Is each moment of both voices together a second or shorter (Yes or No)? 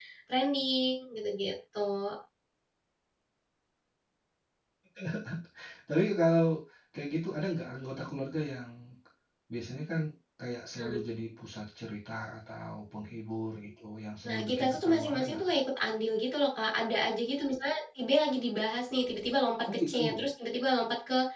No